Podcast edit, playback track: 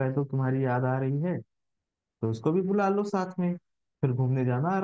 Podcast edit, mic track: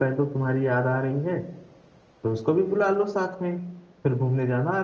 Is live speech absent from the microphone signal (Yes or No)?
Yes